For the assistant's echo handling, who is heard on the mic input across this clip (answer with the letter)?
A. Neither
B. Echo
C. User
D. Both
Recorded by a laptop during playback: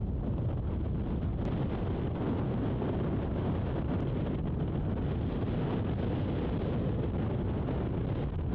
A